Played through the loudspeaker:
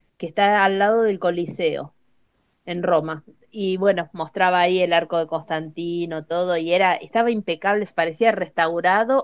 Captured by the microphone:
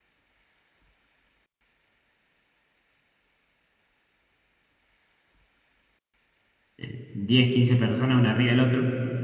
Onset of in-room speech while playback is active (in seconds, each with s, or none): 6.8 s